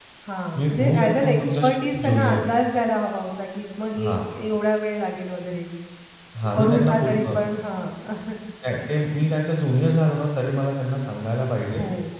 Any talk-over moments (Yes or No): Yes